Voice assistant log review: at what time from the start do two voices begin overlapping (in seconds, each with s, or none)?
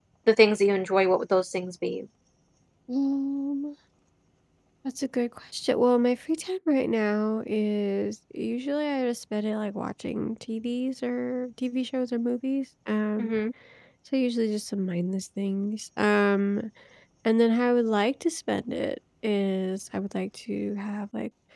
none